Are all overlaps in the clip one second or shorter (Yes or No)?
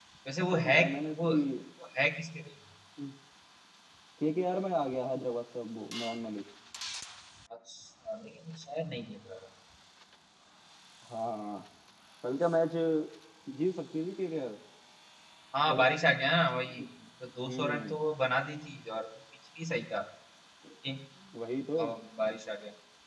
Yes